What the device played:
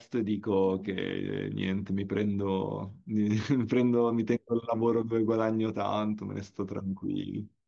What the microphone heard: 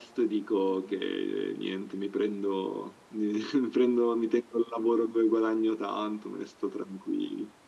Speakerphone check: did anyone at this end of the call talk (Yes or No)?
No